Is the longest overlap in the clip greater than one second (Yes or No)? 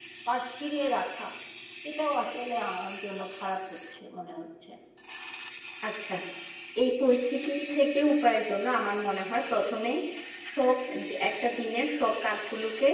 No